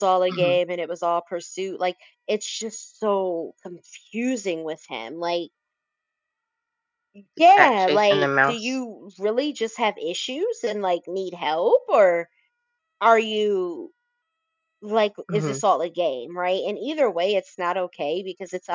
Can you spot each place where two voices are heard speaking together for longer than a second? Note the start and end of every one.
7.5-8.8

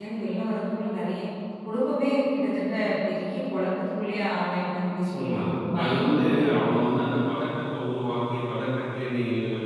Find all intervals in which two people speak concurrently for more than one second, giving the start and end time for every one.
5.2-6.4

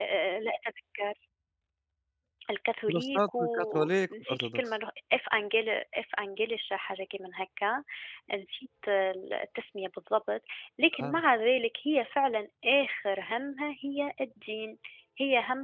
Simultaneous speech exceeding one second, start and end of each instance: 2.9-4.7

